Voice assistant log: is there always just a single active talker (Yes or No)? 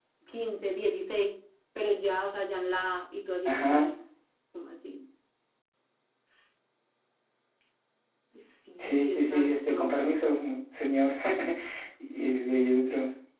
No